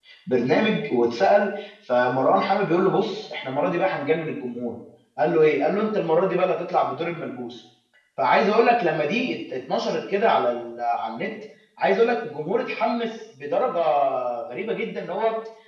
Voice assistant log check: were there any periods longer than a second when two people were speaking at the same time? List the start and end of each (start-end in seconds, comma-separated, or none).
none